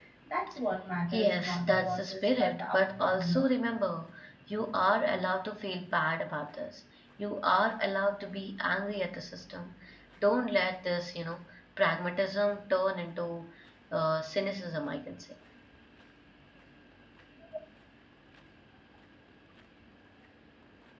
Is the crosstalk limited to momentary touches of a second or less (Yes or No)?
No